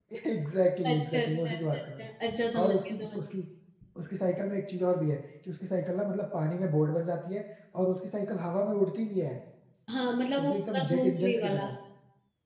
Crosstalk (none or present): present